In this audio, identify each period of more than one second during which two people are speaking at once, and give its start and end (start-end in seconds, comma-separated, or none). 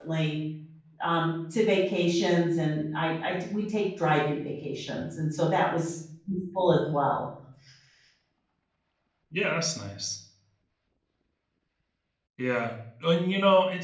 none